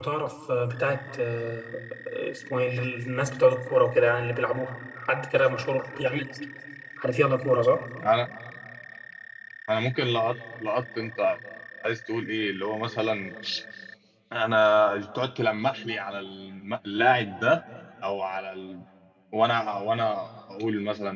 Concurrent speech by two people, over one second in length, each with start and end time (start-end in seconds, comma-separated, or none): none